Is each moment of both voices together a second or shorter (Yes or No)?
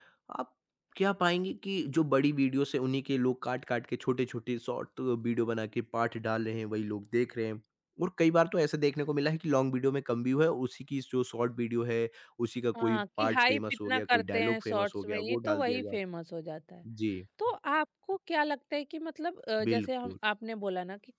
No